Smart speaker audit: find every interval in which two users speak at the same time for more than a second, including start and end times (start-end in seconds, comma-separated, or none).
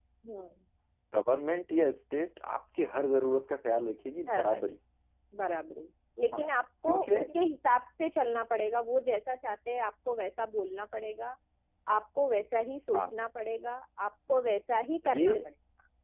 none